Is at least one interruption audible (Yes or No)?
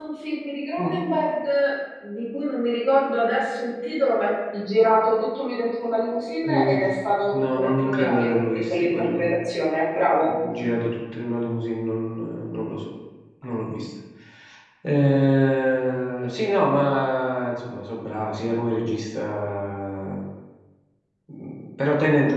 Yes